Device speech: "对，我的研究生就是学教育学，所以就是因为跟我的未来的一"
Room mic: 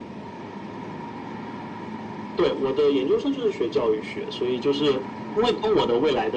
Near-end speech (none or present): none